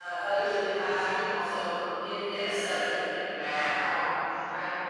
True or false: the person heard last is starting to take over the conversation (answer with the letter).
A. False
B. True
B